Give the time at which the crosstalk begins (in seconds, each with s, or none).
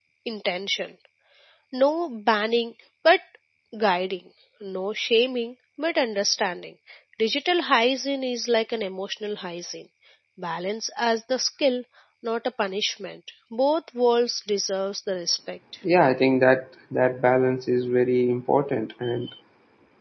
none